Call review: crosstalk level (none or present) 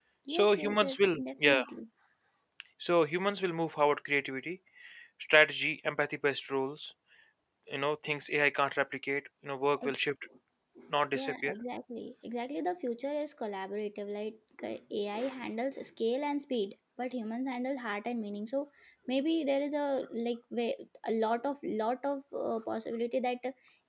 present